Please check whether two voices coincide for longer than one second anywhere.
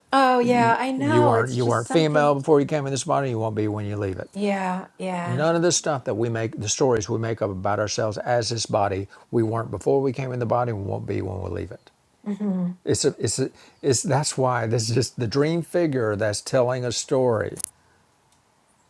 Yes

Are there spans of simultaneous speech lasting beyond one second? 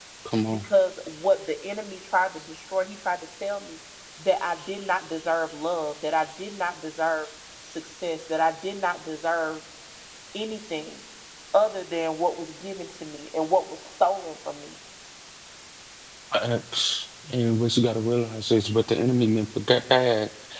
No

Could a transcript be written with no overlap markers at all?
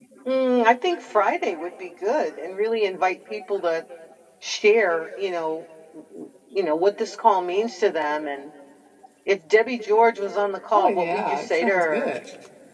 No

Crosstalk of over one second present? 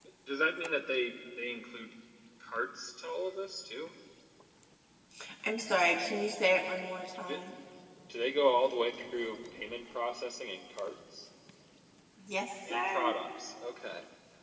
No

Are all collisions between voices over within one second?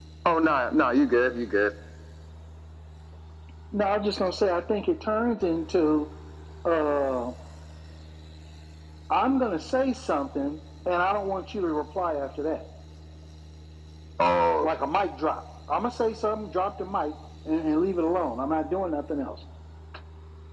Yes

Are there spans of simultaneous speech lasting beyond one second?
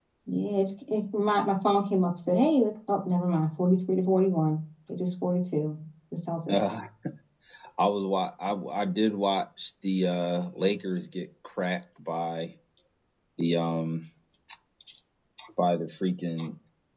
No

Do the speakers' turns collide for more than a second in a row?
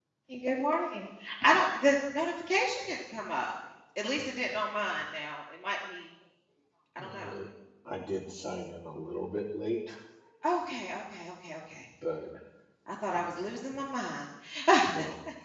No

